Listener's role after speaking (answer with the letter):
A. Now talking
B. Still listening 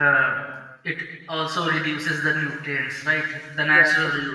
A